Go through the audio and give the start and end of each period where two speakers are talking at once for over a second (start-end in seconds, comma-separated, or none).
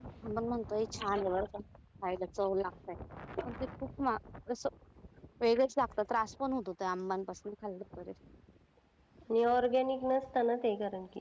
none